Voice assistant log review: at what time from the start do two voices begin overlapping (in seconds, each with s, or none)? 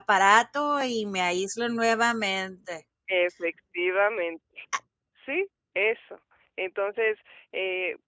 none